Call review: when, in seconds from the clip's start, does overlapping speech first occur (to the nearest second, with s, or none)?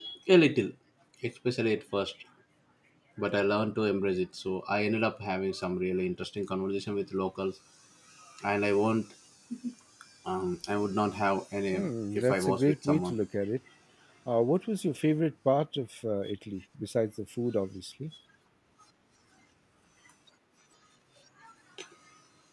12 s